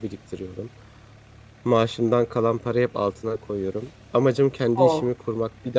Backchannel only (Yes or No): Yes